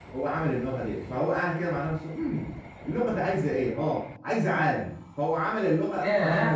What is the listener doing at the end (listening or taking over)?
listening